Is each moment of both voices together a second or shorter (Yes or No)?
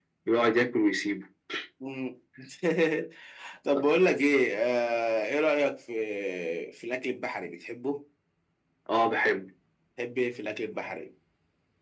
Yes